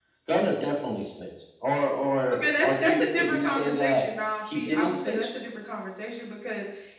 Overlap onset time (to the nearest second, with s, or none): 2 s